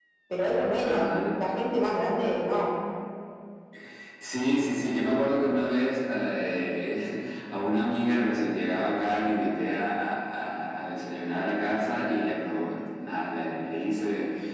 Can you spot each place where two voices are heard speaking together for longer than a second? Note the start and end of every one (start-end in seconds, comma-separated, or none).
none